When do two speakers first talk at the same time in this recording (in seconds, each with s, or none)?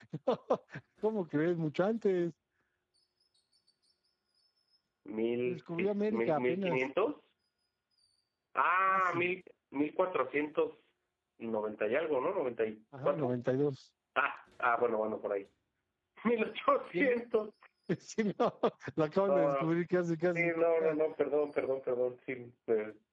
5.4 s